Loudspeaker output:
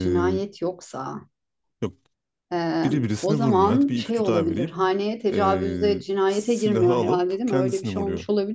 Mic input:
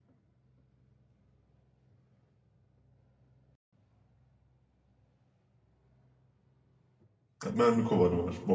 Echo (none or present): none